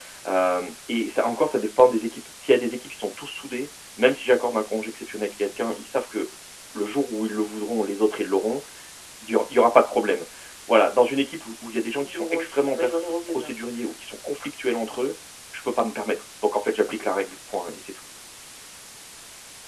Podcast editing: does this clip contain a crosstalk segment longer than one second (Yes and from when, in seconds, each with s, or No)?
Yes, from 12.0 s